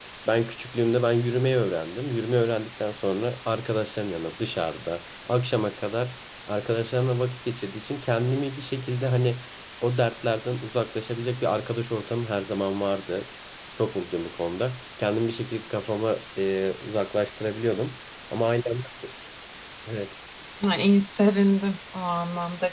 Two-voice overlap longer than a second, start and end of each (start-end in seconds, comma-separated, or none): none